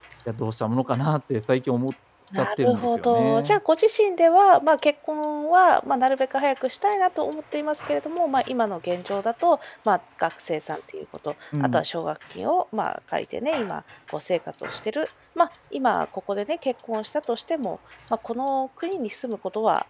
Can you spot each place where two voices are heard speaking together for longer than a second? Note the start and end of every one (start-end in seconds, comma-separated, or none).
2.3-3.6